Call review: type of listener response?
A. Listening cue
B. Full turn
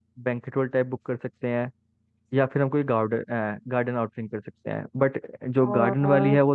A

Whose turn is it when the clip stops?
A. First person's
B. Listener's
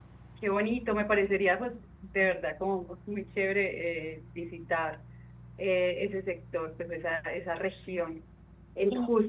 A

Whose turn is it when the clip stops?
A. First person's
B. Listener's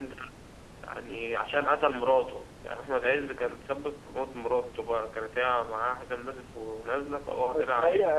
B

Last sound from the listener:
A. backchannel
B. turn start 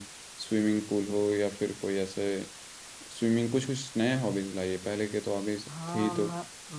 B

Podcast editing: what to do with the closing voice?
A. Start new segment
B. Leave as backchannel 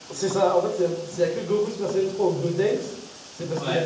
B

